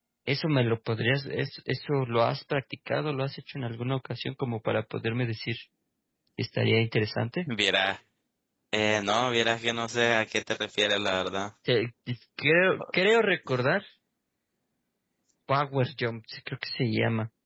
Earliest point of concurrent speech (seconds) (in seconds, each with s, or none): none